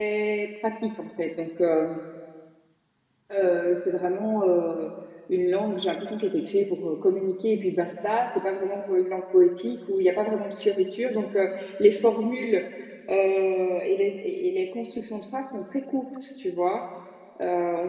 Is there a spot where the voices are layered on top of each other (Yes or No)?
No